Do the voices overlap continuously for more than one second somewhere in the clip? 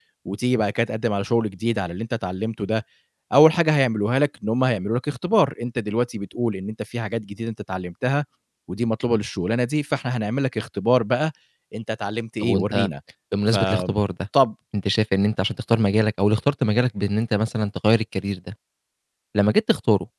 No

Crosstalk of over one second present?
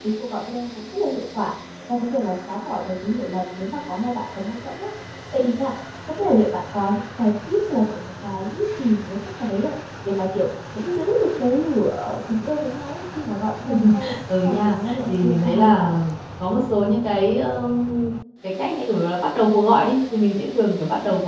Yes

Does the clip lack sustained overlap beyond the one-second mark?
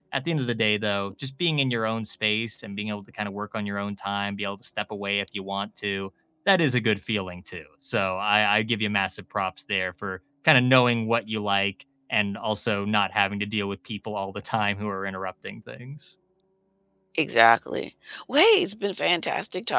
Yes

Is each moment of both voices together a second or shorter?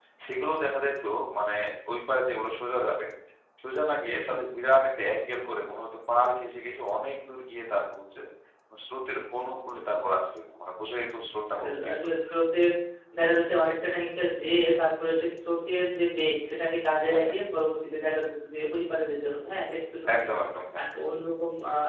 Yes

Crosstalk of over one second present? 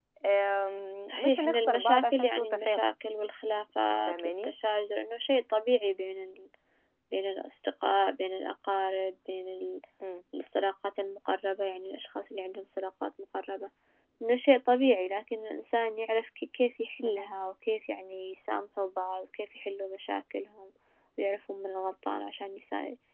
Yes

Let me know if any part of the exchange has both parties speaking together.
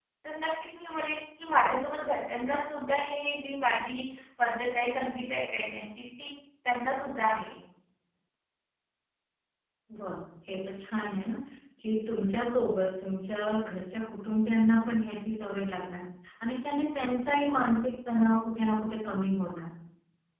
No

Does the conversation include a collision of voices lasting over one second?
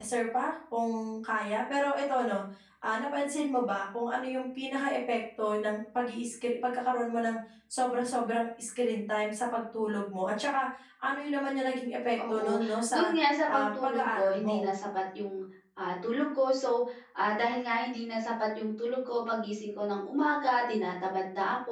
Yes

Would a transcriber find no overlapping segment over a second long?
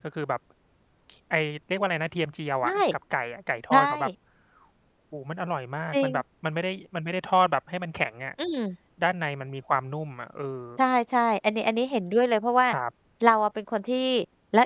Yes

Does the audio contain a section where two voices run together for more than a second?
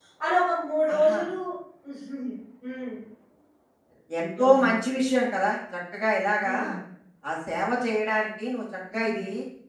No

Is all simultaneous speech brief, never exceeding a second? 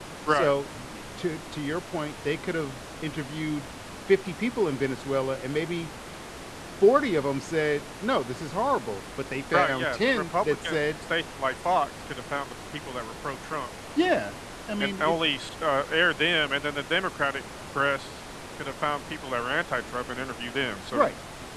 No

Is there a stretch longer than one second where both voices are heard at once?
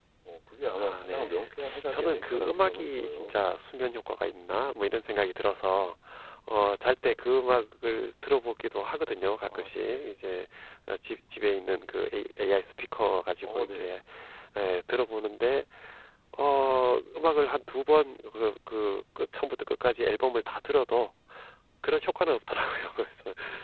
Yes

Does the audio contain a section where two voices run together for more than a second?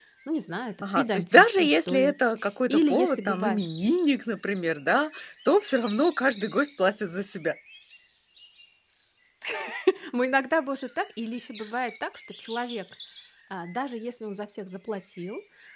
Yes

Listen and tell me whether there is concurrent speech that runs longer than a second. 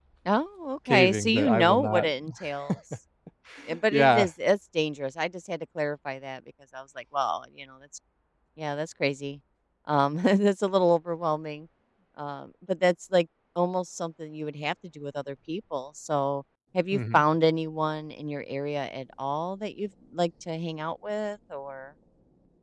Yes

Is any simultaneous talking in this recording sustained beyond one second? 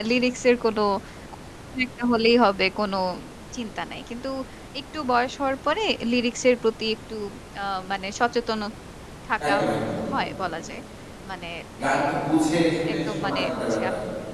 Yes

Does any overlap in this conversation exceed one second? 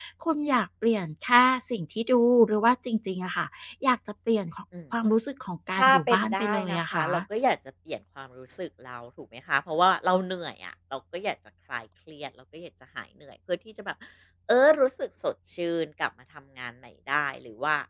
Yes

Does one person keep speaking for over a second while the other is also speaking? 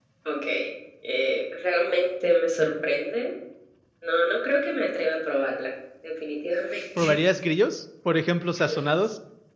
No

